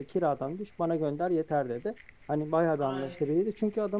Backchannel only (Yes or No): Yes